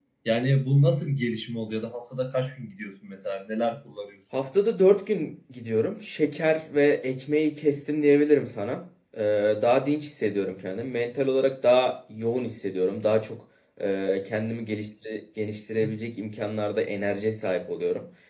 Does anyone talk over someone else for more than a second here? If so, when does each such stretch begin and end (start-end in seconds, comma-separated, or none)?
none